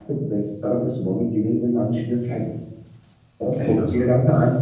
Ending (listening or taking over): listening